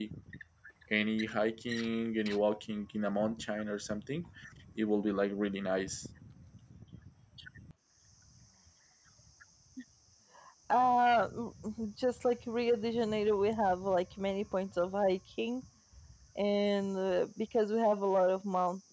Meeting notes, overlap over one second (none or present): none